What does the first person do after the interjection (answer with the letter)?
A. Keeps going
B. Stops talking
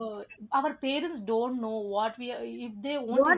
B